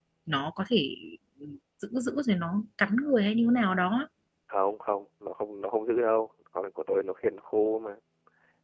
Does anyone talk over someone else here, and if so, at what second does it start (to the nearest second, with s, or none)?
none